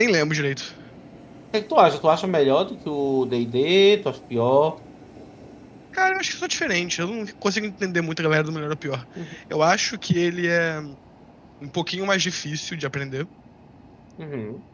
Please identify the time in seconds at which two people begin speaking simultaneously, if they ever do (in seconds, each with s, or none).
none